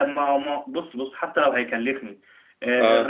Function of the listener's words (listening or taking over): listening